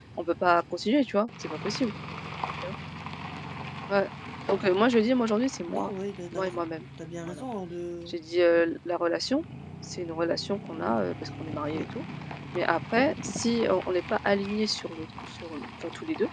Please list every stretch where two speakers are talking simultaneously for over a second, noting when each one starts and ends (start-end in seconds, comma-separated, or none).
none